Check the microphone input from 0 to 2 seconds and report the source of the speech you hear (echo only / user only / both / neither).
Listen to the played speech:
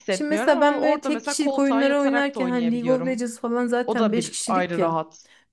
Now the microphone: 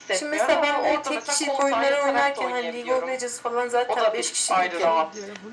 echo only